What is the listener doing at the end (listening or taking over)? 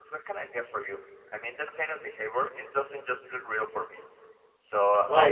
taking over